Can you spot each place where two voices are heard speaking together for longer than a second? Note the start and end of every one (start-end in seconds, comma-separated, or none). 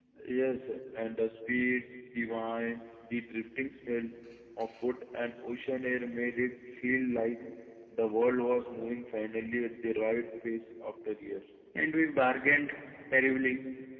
none